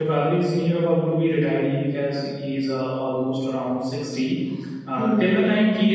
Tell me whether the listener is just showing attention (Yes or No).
Yes